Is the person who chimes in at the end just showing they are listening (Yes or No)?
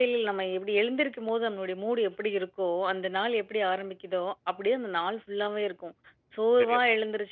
Yes